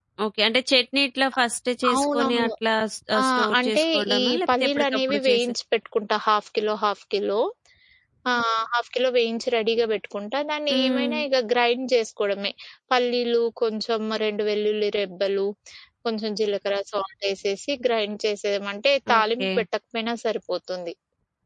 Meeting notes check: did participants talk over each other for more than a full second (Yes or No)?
Yes